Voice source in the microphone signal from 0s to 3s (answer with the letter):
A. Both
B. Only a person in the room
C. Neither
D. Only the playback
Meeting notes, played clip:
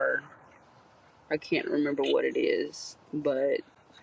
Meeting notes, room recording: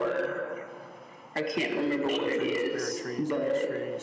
A